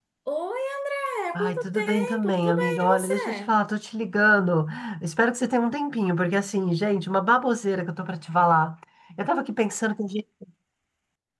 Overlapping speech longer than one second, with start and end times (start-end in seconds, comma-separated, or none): 1.4-3.6